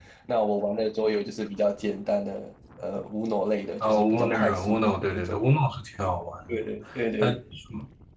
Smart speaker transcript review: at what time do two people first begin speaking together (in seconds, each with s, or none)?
3.8 s